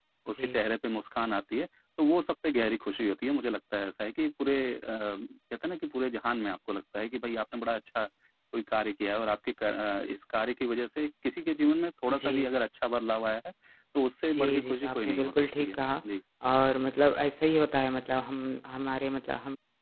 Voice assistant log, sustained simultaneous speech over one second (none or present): present